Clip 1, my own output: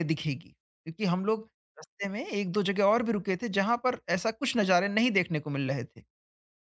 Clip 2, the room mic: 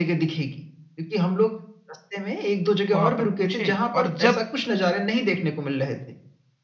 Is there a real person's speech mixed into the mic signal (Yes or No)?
Yes